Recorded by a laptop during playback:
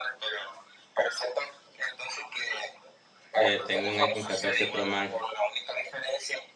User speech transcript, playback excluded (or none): Eh, tengo un iPhone 14 Pro Max.